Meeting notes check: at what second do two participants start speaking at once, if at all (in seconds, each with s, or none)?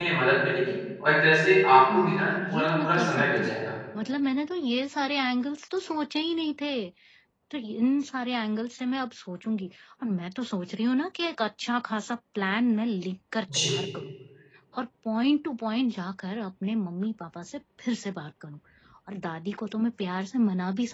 1.8 s